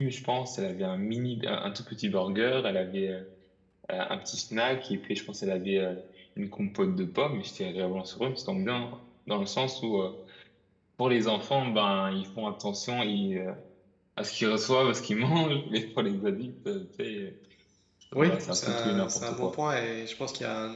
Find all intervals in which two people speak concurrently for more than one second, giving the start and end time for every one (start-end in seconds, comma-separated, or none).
18.2-19.6